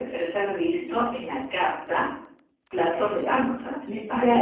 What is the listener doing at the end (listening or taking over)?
taking over